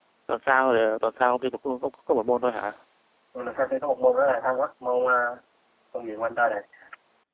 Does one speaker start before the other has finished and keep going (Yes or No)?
No